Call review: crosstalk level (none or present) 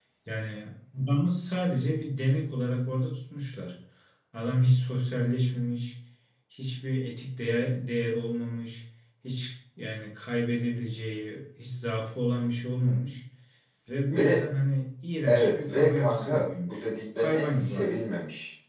present